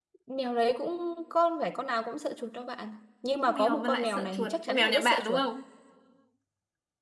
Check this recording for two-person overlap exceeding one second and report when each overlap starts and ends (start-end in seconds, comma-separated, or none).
3.5-5.4